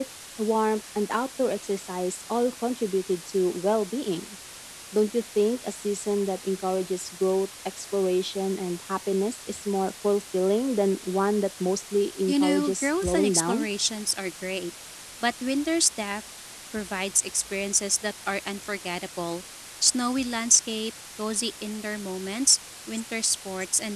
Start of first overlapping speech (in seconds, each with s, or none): 12.3 s